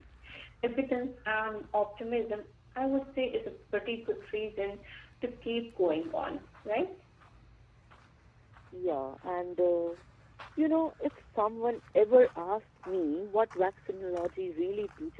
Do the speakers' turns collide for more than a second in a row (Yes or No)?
No